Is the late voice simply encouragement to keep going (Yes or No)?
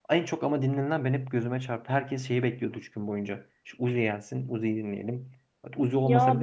No